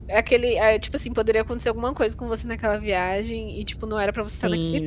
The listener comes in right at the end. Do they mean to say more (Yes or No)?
Yes